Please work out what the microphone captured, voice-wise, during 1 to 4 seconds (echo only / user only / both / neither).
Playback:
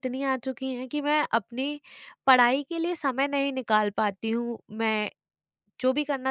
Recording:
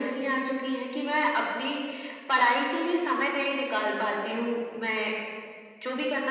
echo only